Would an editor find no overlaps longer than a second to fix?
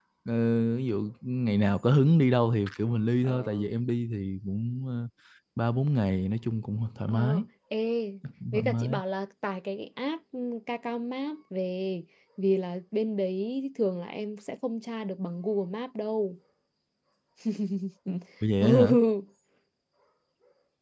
Yes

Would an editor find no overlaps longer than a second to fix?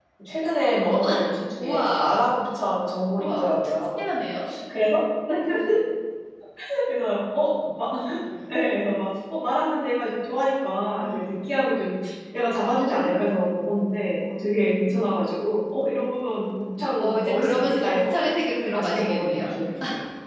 No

